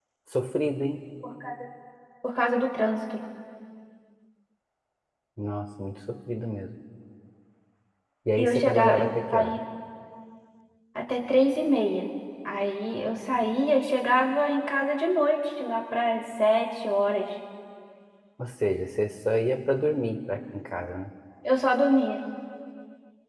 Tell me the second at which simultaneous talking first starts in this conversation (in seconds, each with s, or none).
8.4 s